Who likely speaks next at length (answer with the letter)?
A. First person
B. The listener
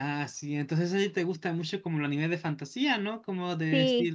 A